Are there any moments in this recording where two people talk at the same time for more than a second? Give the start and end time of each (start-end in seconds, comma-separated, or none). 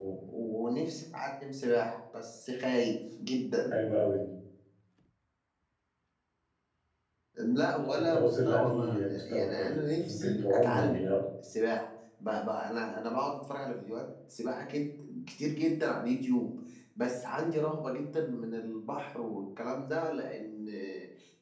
8.0-11.1